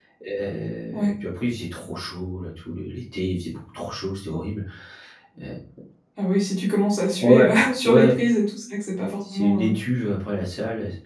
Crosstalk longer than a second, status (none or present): none